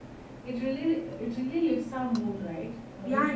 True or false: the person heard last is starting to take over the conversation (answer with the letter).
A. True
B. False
A